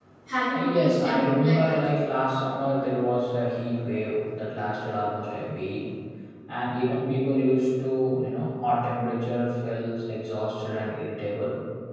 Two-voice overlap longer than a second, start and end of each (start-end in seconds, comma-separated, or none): 0.5-1.9